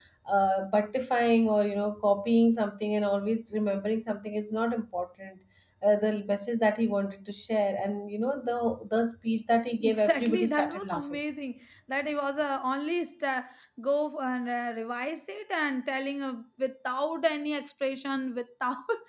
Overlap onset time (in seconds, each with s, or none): 9.8 s